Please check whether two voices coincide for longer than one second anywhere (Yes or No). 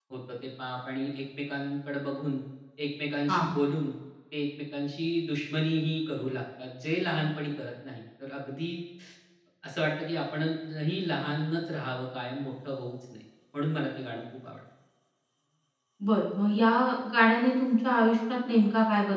No